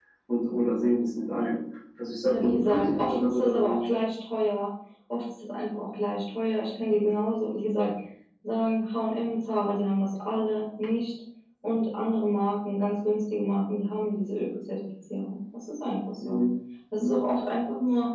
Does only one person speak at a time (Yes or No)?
No